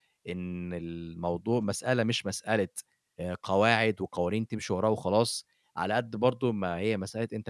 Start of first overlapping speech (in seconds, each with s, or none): none